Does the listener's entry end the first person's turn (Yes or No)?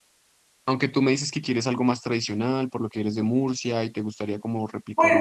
Yes